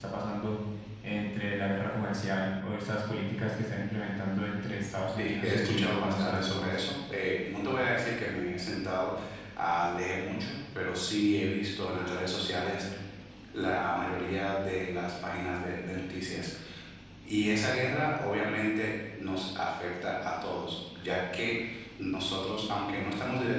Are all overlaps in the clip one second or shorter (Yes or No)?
No